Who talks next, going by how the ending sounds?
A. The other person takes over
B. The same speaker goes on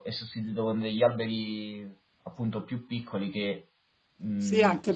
A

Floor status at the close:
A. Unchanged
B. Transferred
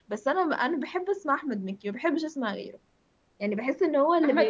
B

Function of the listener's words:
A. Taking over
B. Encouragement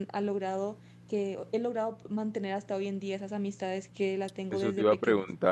A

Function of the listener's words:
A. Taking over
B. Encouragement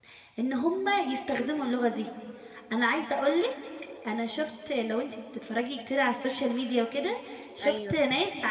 B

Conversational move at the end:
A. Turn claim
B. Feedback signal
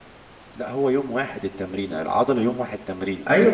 A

